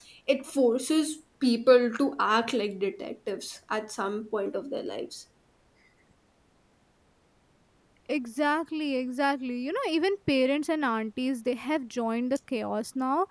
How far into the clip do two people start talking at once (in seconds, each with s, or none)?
none